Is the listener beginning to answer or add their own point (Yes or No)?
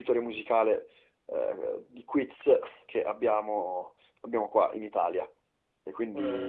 Yes